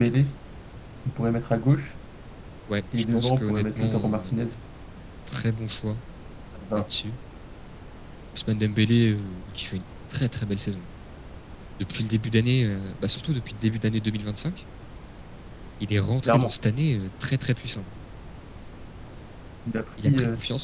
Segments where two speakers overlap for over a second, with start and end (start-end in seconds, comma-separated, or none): 3.0-4.4